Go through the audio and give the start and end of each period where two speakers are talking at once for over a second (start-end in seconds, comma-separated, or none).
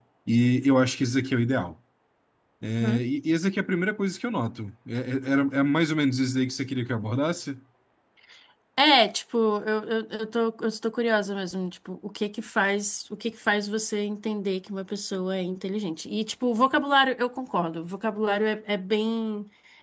none